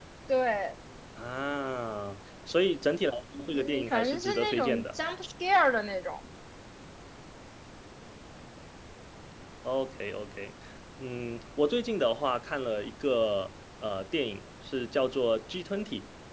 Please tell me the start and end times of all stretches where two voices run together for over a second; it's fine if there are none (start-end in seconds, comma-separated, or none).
3.5-4.8